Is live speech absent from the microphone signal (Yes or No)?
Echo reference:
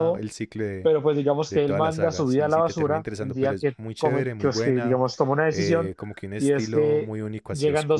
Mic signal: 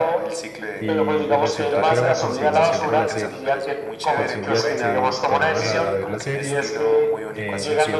No